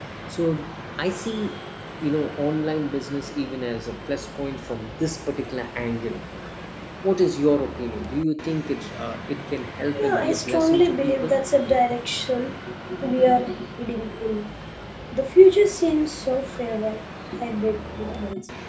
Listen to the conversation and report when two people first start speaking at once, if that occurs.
10 s

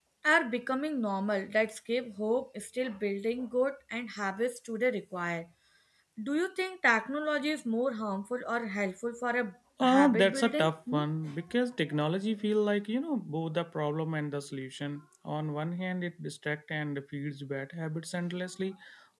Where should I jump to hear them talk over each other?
10 s

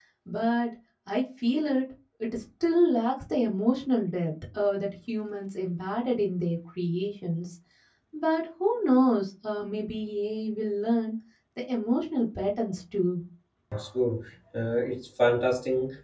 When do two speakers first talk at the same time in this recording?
none

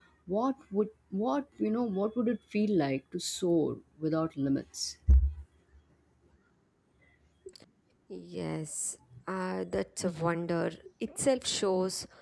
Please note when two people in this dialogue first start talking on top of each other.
none

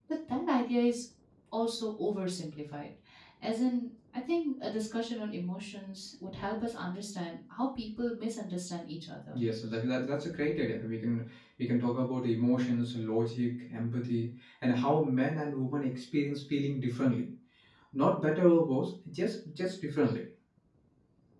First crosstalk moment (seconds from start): none

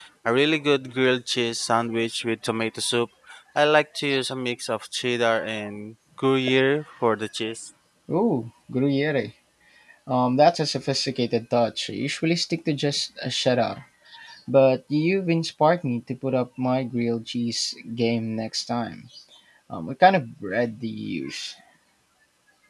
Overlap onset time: none

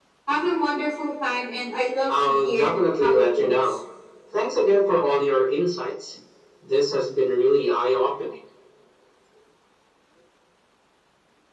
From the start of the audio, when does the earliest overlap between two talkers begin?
2 s

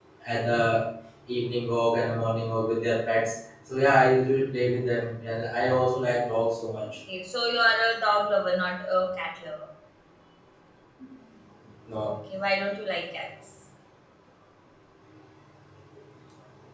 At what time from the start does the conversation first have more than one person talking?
none

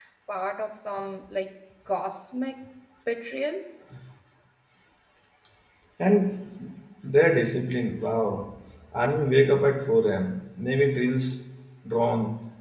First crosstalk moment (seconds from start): none

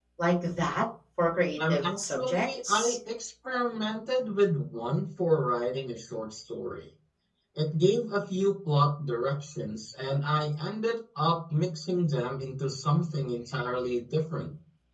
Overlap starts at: 2 s

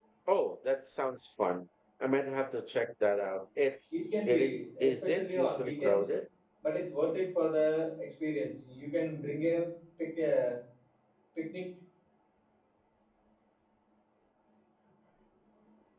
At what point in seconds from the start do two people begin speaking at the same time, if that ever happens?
4 s

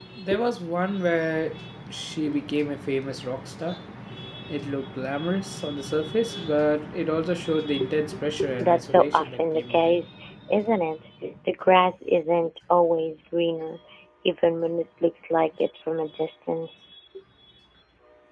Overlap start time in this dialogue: 9 s

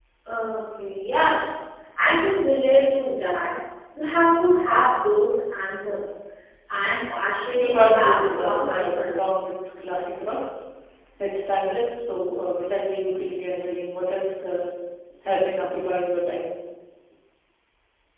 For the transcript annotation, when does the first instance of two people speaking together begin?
8 s

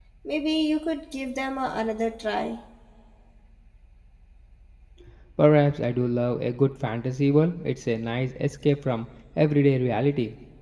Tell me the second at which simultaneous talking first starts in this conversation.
none

